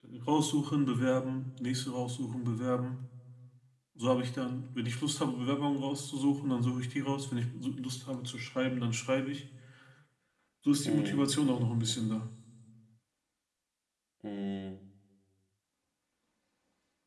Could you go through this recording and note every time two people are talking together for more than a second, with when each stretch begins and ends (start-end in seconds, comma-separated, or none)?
10.8-12.1